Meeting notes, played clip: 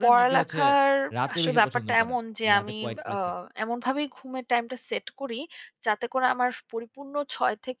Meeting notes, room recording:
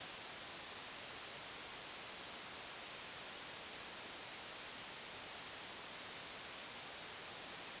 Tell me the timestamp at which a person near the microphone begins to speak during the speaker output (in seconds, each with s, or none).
none